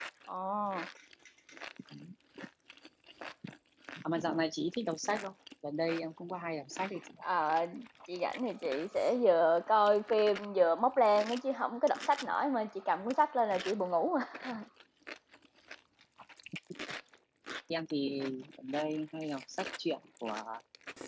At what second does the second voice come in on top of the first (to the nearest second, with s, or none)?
none